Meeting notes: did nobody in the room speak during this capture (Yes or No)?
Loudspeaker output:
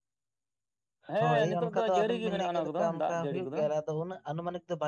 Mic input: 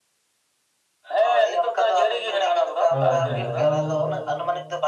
No